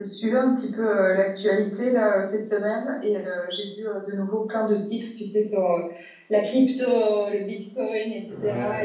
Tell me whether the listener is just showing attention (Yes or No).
Yes